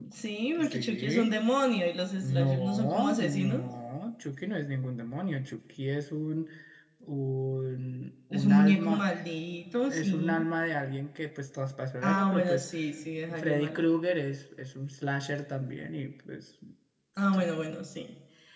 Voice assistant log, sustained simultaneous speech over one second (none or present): present